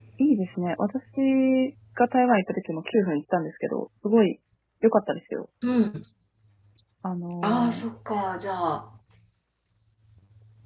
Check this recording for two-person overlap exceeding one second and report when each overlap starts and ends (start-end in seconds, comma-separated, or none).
none